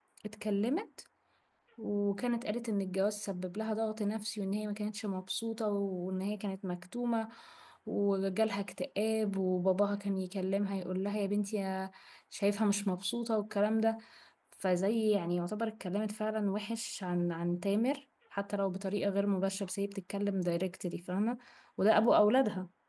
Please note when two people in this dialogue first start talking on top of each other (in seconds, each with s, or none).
none